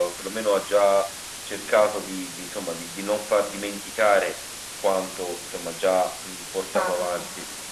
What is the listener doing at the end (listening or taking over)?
listening